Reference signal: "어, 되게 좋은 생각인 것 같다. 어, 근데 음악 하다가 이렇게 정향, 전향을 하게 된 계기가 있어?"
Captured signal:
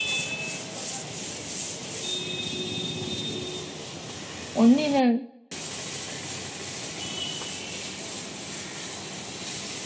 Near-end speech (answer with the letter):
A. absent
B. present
B